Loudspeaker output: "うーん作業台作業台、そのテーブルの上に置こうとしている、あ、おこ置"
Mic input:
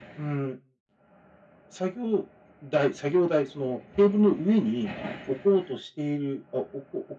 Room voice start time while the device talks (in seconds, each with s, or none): none